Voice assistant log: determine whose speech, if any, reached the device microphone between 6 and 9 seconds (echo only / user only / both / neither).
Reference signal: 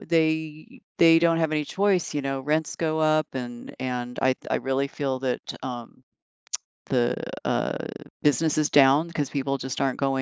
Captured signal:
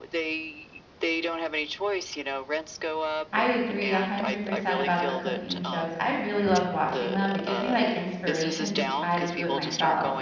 both